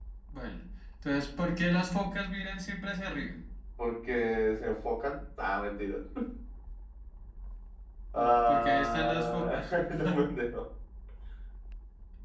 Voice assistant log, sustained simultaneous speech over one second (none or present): present